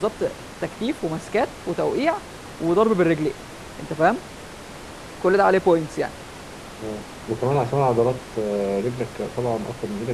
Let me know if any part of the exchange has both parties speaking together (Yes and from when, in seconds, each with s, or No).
No